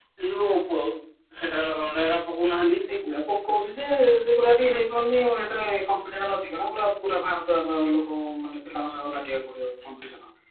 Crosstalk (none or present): none